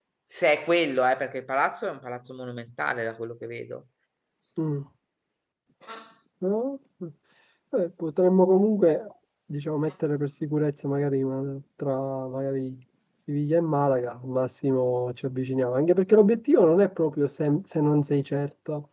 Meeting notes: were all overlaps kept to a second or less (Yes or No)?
Yes